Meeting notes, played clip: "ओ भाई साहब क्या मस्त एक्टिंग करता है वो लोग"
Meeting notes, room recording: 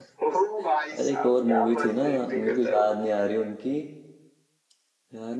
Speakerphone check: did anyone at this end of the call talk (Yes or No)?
Yes